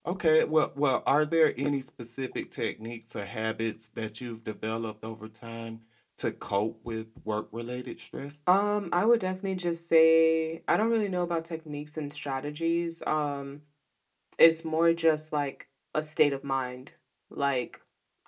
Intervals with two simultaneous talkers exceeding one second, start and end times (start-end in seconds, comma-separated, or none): none